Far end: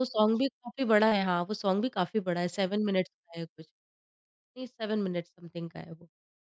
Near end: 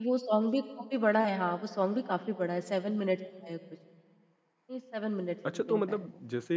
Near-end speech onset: 5.5 s

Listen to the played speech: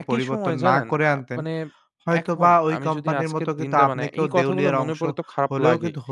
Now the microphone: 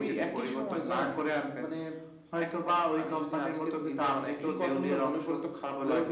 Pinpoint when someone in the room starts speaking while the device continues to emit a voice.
none

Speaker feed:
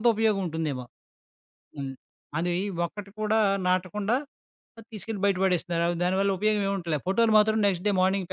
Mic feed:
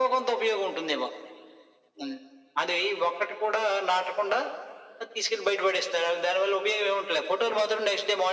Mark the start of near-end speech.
none

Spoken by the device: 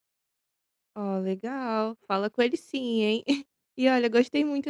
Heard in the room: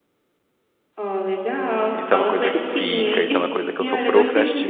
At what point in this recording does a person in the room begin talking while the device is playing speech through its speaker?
2.0 s

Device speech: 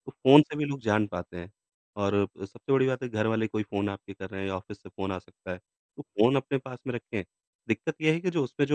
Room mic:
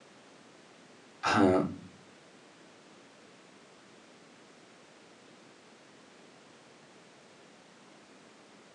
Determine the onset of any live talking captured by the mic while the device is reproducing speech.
1.2 s

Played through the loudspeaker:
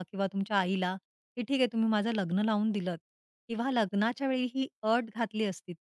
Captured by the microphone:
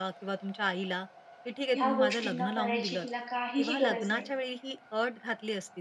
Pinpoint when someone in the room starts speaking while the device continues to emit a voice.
1.8 s

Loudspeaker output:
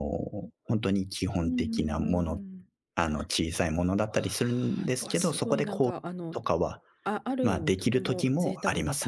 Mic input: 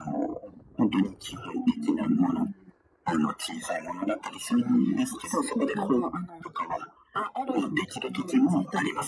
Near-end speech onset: none

